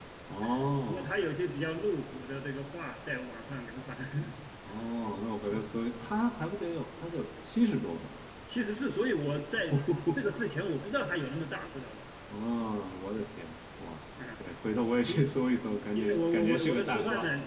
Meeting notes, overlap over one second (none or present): present